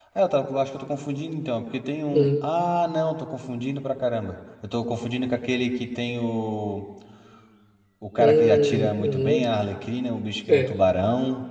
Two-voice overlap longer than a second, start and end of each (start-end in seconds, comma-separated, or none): 8.2-9.4